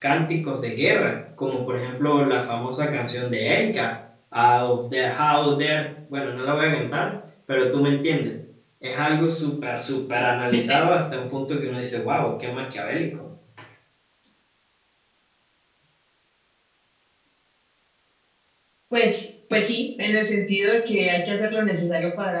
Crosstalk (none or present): none